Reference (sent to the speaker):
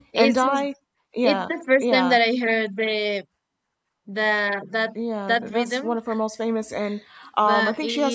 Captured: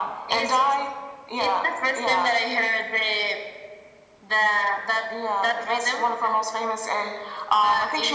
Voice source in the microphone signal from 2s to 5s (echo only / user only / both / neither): echo only